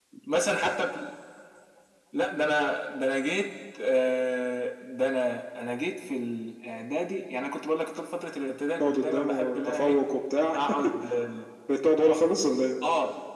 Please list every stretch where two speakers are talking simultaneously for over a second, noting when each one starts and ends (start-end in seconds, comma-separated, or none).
8.8-10.0